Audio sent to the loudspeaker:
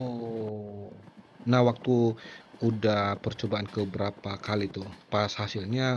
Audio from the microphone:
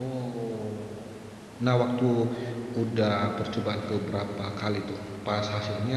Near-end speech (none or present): none